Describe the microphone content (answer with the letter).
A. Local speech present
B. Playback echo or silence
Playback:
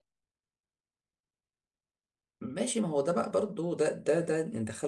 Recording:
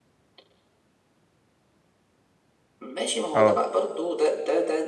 A